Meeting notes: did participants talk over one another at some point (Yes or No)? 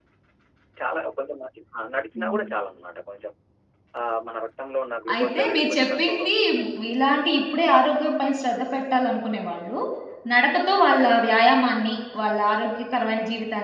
Yes